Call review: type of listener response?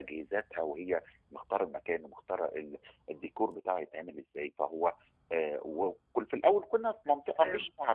listening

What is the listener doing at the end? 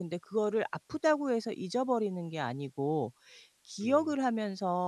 listening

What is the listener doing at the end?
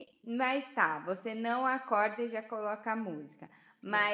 listening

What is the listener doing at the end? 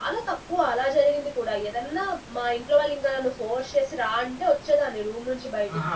taking over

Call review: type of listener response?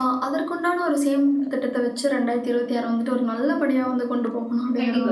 taking over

